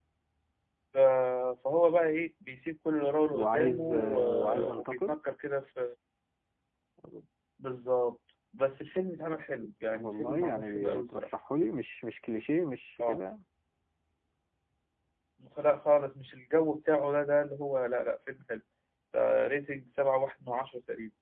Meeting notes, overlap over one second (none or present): present